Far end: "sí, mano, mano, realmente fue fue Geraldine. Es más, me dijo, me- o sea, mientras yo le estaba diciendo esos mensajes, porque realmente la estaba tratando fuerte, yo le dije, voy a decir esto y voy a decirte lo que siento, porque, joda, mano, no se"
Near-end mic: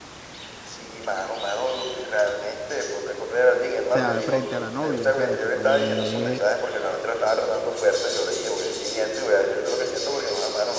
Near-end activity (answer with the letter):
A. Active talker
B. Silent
A